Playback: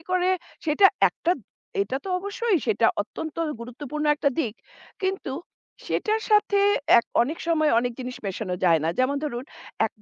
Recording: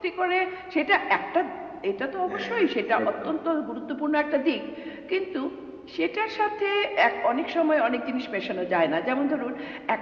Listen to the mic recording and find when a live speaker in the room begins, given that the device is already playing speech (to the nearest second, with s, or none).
2 s